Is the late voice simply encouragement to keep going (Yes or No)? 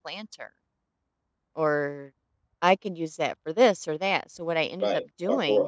No